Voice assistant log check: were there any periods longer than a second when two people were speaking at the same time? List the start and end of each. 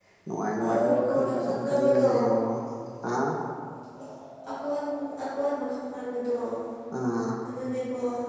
0.8-2.1

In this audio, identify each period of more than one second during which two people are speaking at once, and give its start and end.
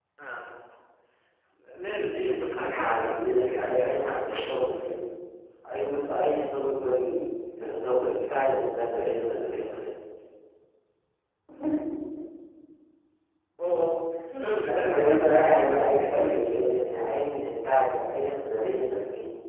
2.6-4.2, 14.6-16.5

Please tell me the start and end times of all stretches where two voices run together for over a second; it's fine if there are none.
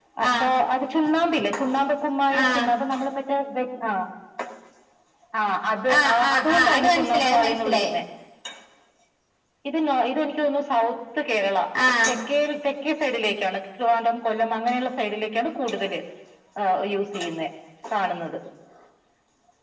6.0-7.9

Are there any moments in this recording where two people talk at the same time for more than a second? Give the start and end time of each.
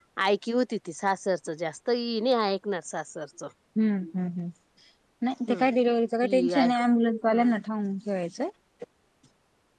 none

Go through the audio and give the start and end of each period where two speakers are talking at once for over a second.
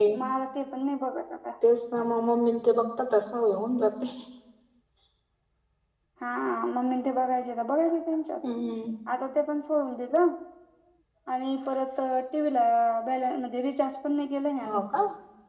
none

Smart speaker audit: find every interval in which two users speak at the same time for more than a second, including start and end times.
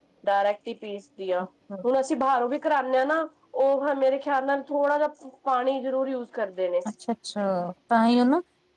none

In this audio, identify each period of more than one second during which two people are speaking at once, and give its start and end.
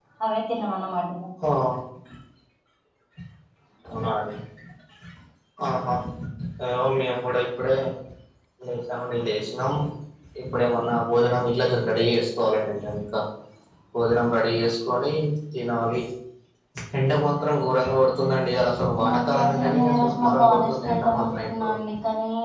19.0-21.7

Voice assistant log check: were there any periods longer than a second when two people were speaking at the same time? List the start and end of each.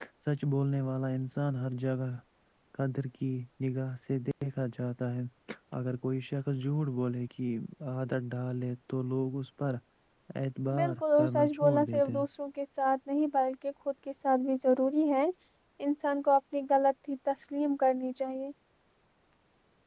10.8-12.2

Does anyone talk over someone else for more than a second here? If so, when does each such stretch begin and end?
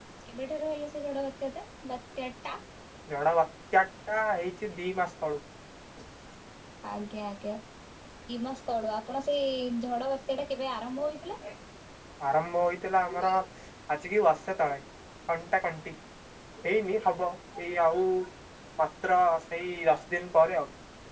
none

